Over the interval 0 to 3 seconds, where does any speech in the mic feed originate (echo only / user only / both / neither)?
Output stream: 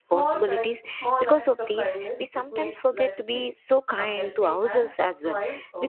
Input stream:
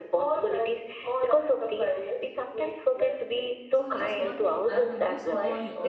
echo only